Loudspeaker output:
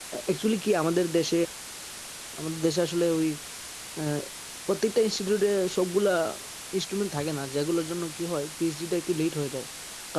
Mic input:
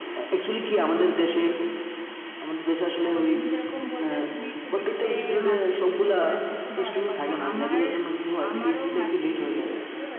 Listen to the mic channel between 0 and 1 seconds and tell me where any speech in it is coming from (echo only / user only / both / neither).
echo only